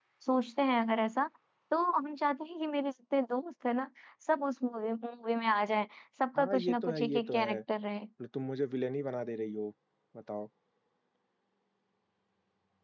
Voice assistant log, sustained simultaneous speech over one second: present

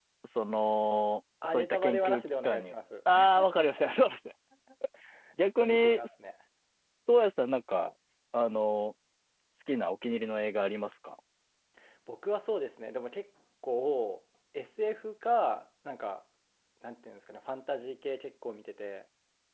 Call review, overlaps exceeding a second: present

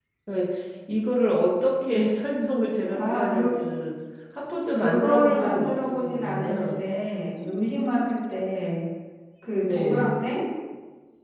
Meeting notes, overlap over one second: present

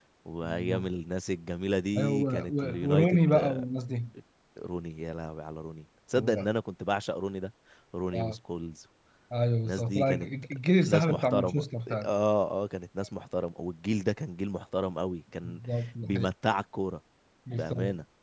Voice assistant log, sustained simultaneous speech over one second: present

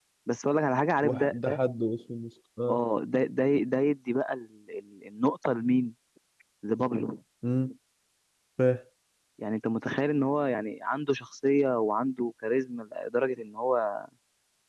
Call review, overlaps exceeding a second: none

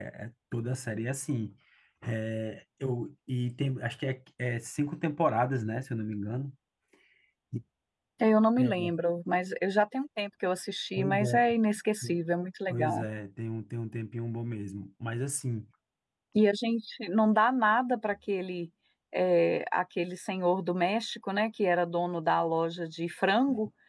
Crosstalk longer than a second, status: none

